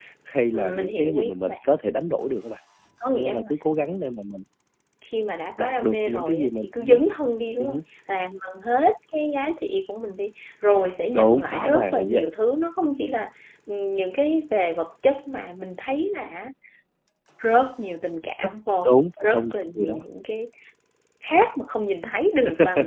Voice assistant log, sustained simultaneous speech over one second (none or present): present